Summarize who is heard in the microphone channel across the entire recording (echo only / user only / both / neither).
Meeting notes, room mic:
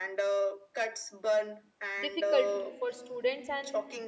both